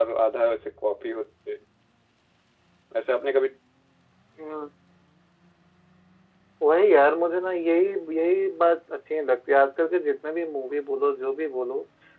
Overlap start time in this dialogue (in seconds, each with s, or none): none